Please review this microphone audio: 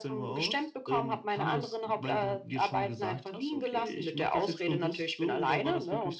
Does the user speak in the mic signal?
No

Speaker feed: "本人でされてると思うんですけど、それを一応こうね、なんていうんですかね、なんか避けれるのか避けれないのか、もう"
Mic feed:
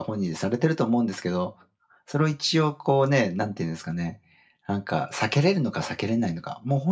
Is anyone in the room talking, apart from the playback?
No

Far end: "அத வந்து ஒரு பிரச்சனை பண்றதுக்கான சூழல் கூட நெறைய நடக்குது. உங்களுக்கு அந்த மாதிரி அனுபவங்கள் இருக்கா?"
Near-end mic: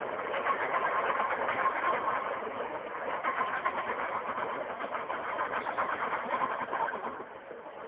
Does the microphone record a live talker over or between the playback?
No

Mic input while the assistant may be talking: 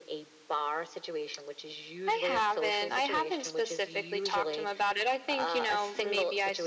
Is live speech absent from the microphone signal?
No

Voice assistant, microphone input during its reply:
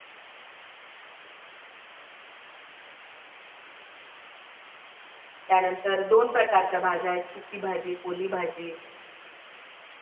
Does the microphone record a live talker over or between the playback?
Yes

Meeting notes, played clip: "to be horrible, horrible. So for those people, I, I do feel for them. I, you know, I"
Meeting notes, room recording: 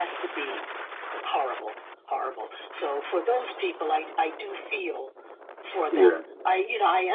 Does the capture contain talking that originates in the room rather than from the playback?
Yes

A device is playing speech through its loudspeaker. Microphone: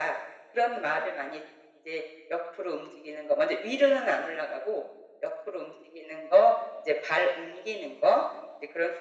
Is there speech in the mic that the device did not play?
No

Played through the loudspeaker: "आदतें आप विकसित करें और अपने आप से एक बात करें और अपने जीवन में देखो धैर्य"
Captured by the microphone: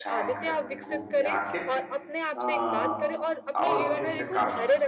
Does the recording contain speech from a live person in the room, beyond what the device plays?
Yes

